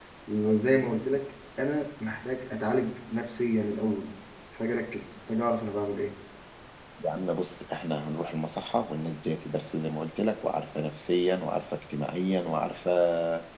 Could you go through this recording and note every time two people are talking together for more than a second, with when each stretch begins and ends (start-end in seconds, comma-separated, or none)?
none